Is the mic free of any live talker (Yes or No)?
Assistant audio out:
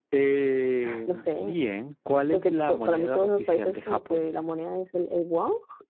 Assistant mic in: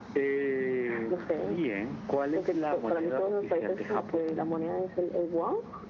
Yes